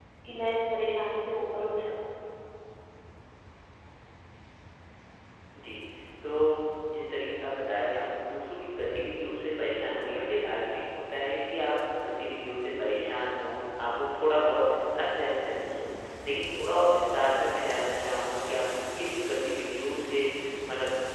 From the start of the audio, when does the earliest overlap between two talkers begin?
none

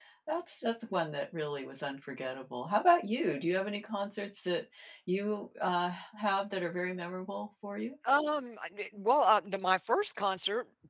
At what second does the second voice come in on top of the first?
none

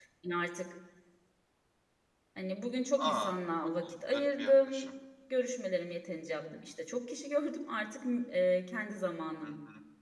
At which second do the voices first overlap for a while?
3 s

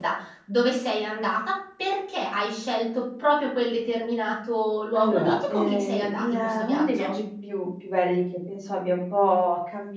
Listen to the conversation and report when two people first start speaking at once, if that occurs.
5 s

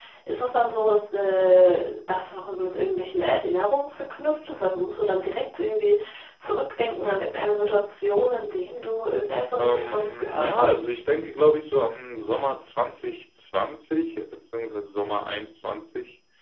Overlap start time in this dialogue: 10 s

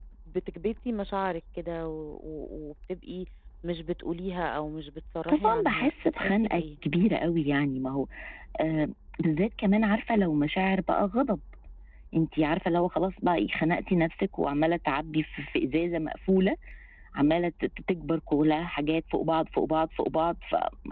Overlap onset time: 5 s

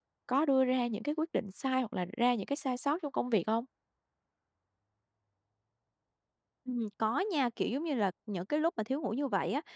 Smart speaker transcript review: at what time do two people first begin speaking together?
none

